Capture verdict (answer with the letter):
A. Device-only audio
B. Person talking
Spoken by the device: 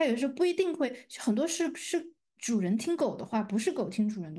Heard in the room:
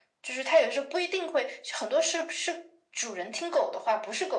A